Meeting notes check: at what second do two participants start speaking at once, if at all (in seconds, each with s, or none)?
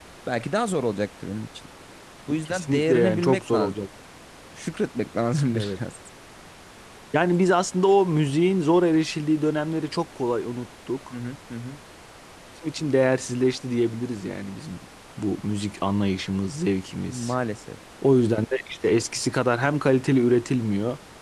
2.5 s